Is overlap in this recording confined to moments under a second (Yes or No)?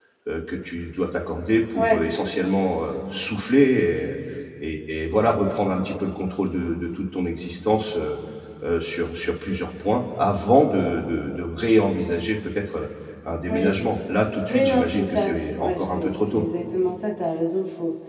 No